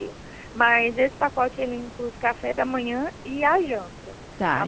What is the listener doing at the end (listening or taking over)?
taking over